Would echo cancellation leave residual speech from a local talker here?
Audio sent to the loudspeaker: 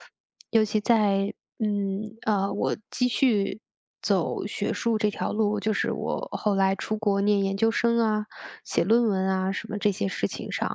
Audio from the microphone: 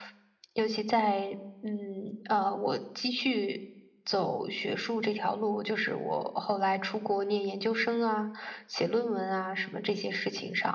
No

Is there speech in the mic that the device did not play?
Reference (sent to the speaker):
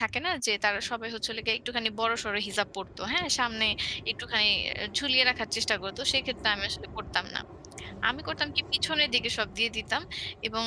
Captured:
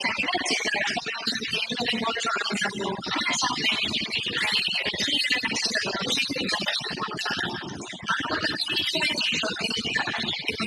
No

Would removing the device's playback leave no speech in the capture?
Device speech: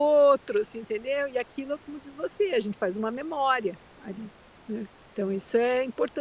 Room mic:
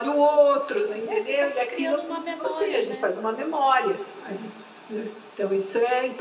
No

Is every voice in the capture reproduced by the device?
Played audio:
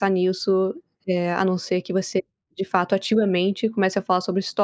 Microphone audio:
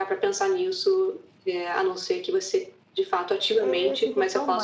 No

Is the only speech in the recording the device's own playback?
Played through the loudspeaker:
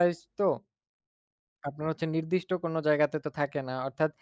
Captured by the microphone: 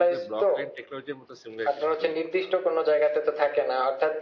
No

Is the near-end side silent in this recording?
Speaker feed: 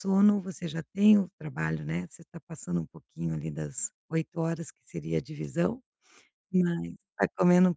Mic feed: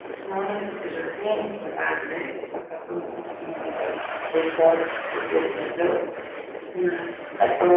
Yes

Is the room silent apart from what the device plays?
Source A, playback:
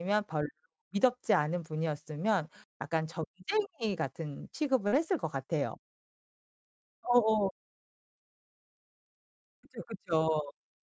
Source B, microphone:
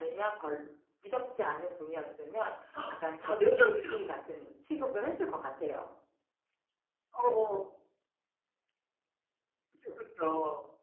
No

